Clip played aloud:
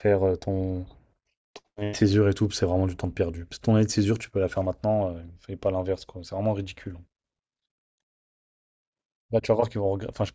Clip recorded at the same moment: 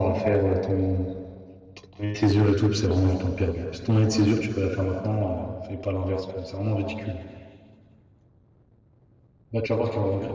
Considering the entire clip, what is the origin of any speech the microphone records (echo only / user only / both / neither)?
echo only